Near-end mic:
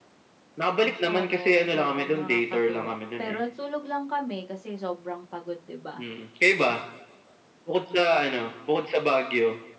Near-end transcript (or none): Oo, sobrang nakakatuwa, pero natulog lang kami, kasi sobrang pagod, 'di ba,